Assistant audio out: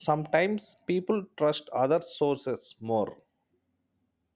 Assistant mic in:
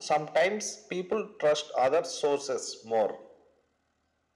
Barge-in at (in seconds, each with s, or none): none